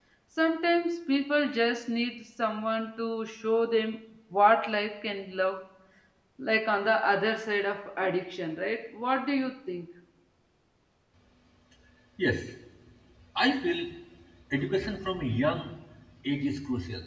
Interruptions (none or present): none